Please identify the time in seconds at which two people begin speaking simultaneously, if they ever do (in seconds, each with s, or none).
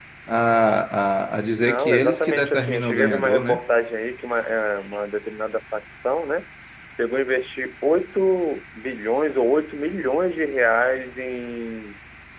1.6 s